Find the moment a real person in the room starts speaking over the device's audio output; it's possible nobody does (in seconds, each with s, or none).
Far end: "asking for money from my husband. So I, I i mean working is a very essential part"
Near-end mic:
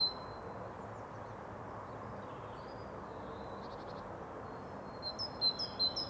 none